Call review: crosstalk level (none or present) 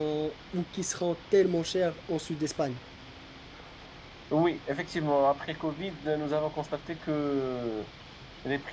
none